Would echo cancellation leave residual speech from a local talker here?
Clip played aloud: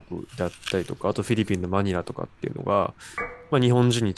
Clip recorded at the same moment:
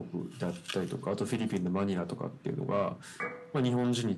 No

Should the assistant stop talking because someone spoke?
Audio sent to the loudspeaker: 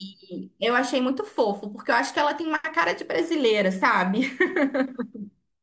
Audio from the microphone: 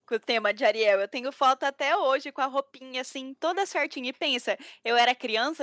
Yes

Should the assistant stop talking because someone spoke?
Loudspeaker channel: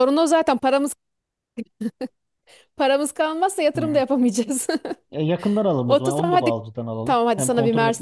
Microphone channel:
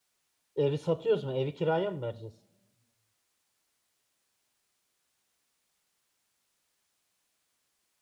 Yes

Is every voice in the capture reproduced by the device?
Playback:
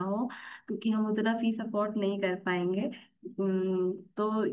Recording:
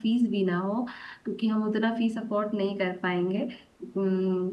Yes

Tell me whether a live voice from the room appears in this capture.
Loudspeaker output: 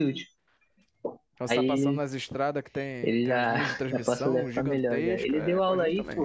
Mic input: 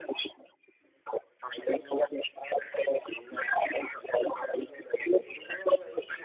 No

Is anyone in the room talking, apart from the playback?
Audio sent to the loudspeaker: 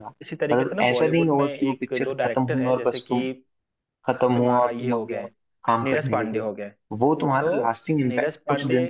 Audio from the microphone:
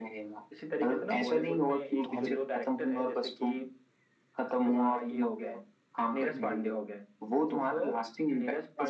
Yes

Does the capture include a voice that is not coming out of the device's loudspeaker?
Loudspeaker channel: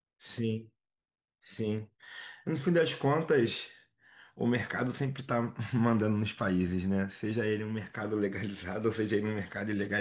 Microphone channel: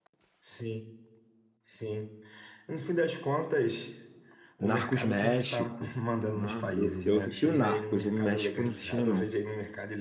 Yes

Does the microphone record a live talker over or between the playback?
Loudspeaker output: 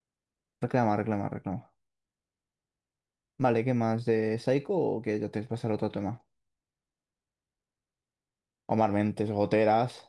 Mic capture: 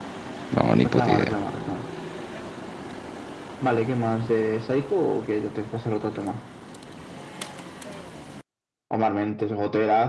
Yes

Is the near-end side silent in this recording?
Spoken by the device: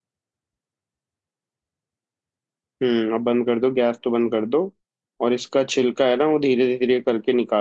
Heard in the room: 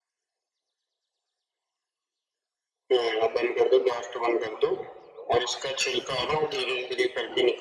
Yes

